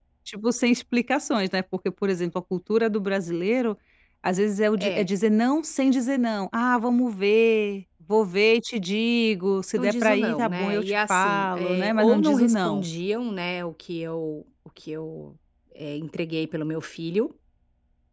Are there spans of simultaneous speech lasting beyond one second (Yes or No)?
Yes